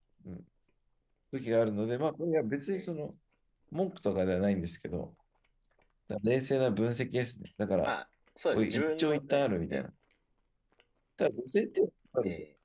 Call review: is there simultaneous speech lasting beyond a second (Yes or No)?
Yes